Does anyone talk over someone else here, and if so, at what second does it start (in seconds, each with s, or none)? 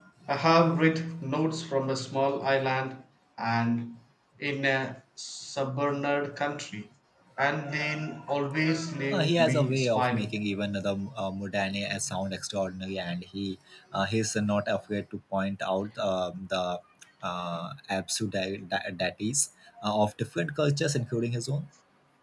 9.1 s